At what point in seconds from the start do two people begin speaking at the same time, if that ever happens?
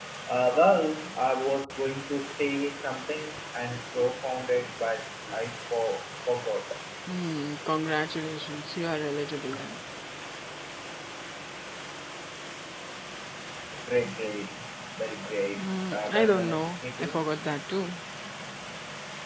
15.6 s

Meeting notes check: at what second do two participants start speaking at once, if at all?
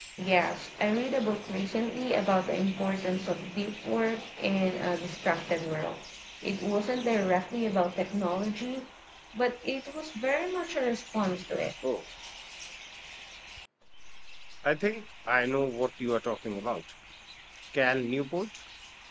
none

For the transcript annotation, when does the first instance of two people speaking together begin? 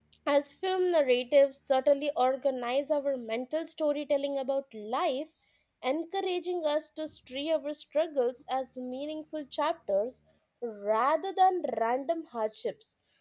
none

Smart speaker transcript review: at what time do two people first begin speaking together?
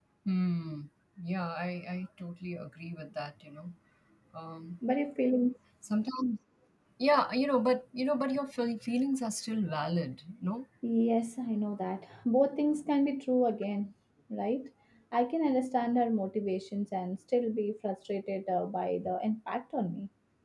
none

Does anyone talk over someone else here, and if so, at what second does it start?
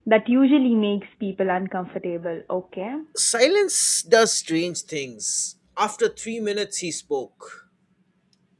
none

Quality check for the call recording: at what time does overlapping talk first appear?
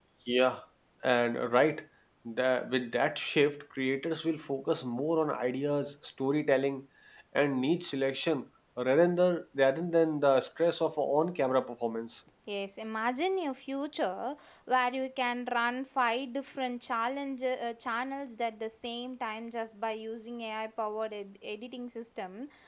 none

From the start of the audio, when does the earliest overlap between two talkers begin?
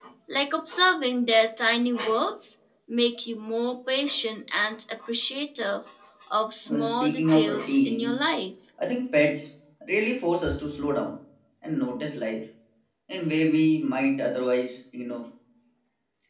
6.7 s

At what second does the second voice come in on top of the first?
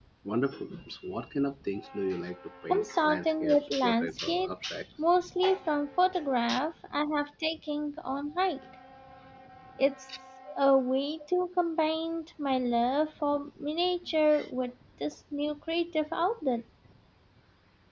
2.7 s

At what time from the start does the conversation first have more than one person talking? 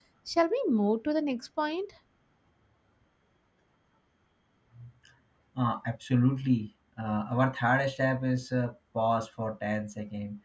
none

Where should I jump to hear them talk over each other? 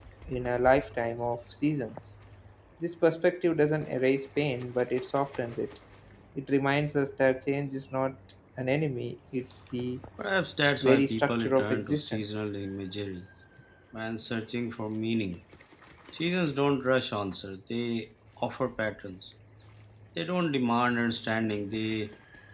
10.8 s

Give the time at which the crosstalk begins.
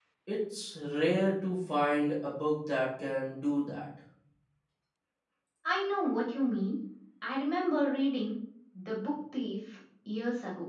none

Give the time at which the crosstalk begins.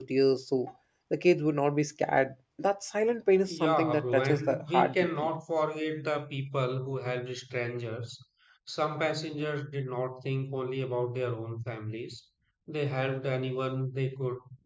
3.5 s

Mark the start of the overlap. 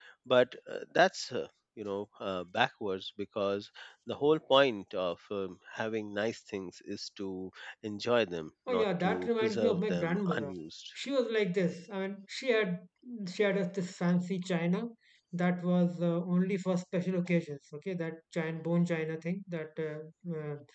8.7 s

